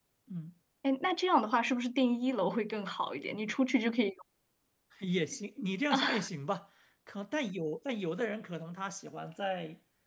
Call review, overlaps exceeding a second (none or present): none